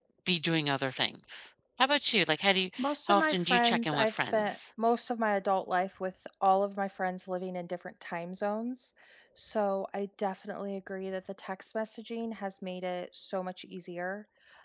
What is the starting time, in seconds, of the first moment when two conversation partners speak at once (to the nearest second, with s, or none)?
3 s